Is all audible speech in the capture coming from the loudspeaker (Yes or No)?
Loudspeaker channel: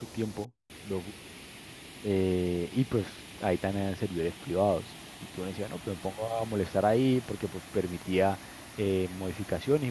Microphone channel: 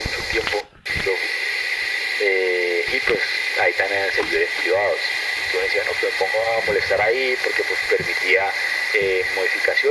Yes